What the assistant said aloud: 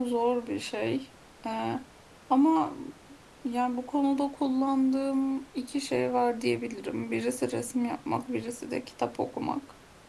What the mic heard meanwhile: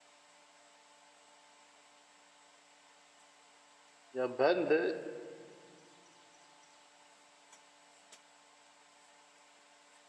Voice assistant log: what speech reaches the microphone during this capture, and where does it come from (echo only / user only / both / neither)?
user only